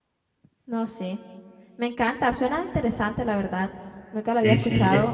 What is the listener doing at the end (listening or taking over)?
taking over